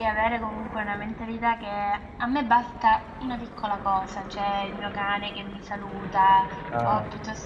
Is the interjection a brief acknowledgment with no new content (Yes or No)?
Yes